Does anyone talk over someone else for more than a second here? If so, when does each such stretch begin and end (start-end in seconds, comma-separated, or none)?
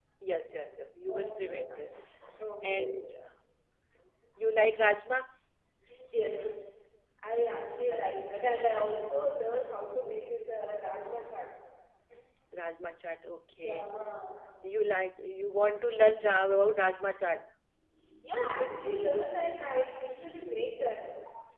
none